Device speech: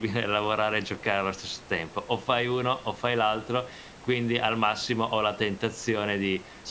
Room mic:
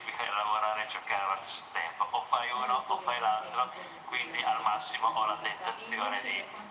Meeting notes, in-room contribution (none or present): present